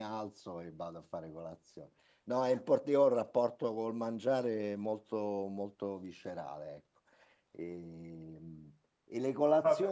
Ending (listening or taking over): listening